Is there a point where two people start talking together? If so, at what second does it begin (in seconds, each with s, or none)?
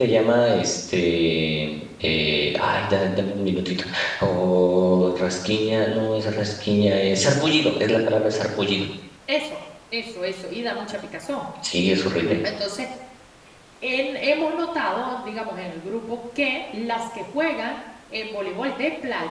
none